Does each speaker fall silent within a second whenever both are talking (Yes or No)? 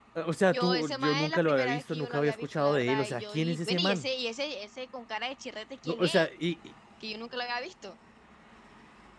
No